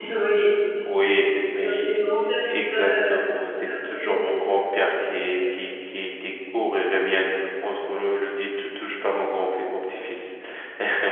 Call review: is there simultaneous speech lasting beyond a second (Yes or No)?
Yes